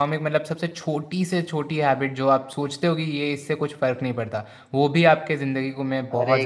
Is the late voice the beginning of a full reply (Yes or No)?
Yes